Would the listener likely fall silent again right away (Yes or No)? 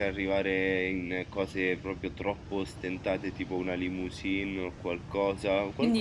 No